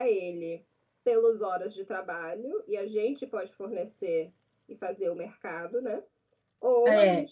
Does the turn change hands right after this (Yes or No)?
No